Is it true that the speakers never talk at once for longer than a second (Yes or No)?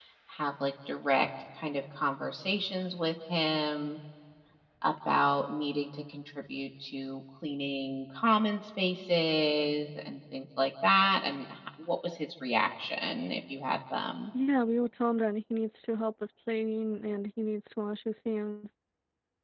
Yes